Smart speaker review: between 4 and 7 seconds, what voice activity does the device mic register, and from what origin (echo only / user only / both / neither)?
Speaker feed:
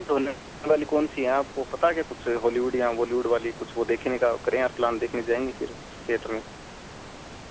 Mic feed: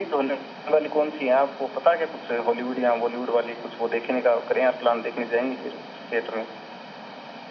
echo only